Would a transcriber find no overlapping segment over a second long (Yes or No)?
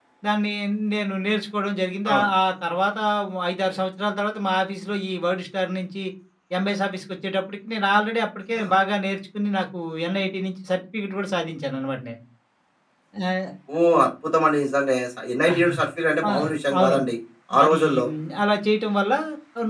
Yes